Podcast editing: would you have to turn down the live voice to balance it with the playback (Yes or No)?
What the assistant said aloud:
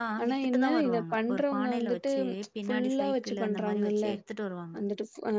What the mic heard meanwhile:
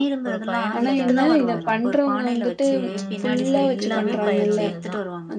No